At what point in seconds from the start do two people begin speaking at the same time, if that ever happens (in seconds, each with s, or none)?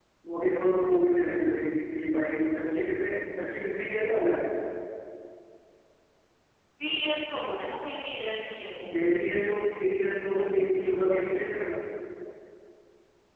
none